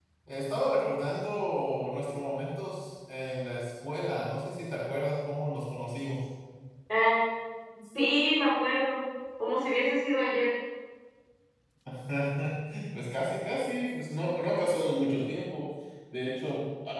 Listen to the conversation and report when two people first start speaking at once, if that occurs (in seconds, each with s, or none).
none